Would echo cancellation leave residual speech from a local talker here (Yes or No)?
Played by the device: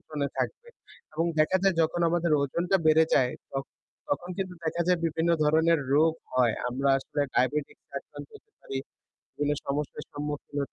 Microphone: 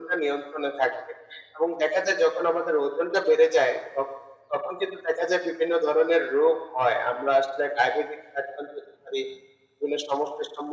No